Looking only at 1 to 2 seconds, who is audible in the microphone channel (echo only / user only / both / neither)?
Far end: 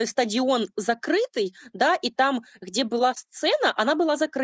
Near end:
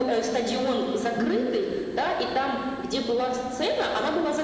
both